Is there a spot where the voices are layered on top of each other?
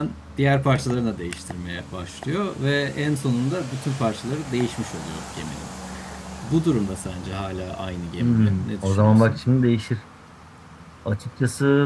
Yes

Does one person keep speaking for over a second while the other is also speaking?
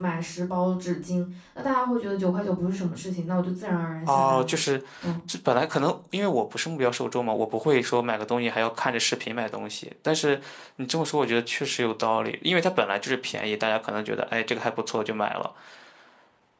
No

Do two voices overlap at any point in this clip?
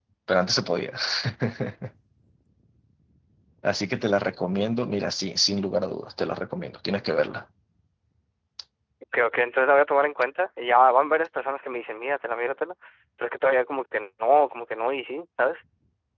No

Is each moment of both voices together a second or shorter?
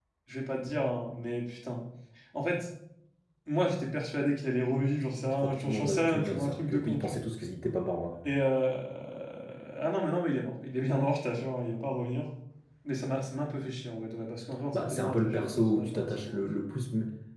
No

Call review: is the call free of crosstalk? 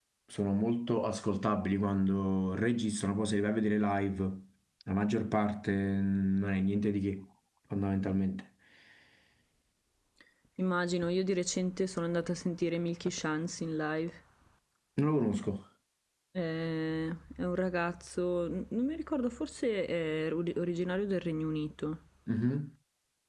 Yes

